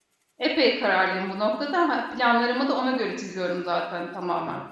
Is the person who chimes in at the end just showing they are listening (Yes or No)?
Yes